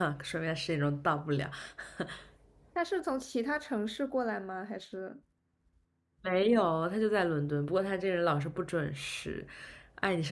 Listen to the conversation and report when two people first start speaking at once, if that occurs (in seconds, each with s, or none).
none